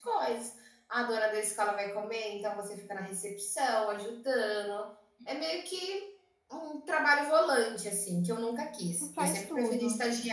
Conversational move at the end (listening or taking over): listening